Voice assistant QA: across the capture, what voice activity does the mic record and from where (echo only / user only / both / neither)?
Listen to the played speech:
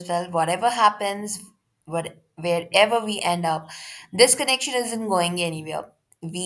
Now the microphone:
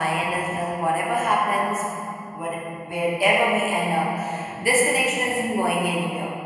echo only